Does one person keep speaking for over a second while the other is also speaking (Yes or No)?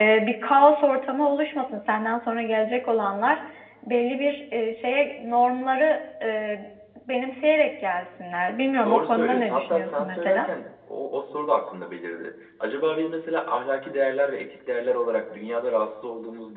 Yes